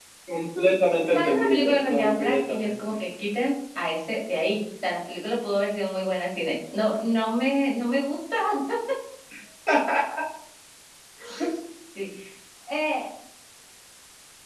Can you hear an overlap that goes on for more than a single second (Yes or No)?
Yes